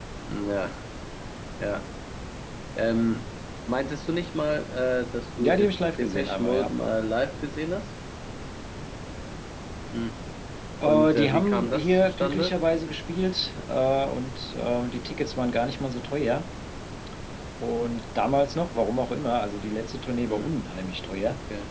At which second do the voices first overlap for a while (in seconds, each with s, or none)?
5.4 s